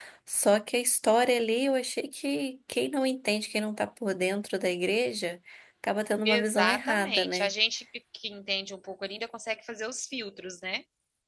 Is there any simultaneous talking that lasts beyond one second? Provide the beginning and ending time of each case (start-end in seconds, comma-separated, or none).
6.2-7.5